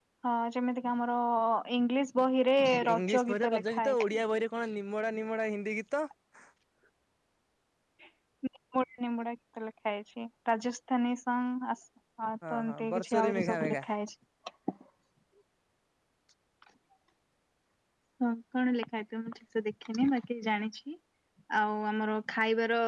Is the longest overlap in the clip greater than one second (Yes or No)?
Yes